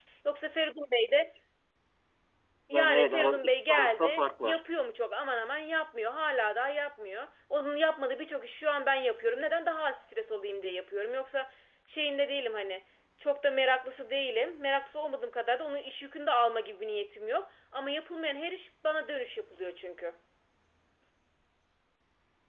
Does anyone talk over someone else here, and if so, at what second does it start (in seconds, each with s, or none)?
2.7 s